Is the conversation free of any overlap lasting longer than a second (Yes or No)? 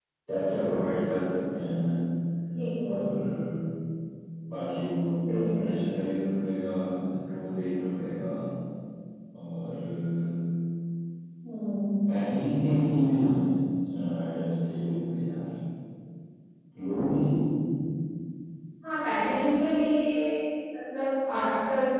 Yes